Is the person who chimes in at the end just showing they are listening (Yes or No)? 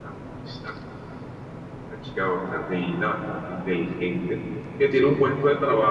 Yes